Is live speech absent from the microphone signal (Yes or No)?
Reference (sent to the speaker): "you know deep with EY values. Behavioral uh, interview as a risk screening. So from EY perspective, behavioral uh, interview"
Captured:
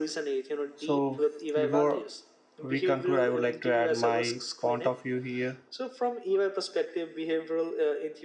No